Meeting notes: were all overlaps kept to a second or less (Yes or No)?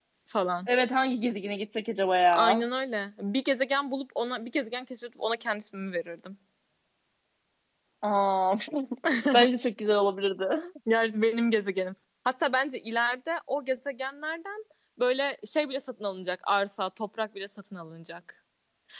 Yes